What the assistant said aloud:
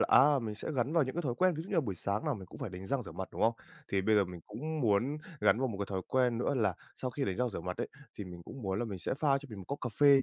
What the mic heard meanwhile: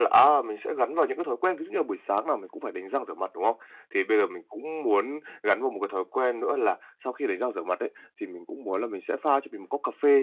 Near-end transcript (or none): none